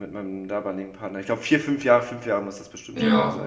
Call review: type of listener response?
taking over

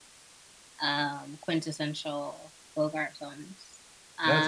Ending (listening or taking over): taking over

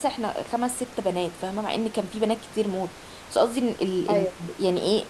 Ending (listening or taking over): listening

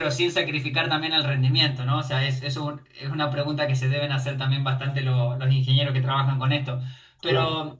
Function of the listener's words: listening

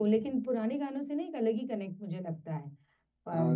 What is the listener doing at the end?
listening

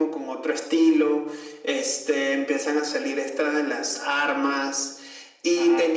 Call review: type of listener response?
listening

